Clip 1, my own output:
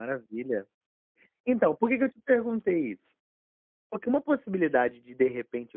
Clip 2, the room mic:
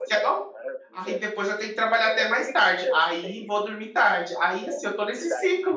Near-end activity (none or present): present